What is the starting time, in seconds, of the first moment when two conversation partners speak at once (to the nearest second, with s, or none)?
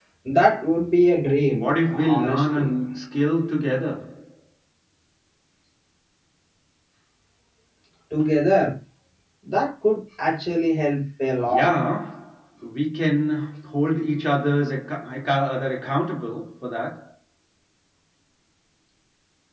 1 s